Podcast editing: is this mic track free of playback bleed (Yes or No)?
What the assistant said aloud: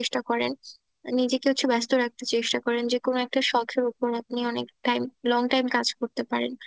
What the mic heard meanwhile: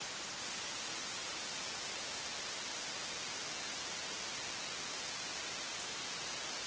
Yes